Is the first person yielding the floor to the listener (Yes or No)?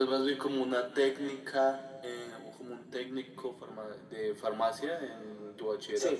Yes